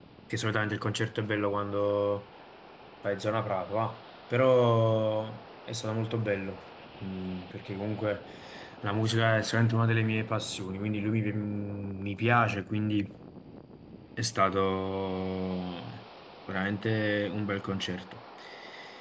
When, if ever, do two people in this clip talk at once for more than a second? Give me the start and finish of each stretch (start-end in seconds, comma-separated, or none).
none